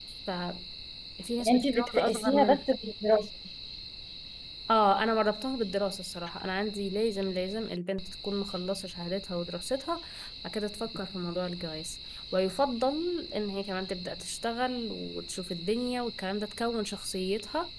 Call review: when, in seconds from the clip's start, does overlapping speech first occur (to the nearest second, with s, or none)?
1 s